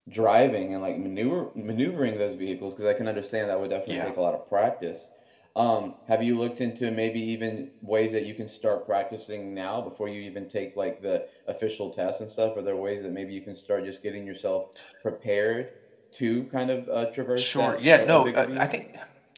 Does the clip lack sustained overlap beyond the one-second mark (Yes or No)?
No